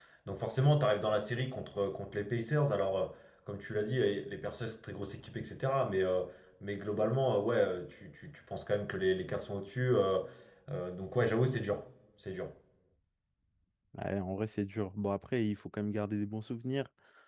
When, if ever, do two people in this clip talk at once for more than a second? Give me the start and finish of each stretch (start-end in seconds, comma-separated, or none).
none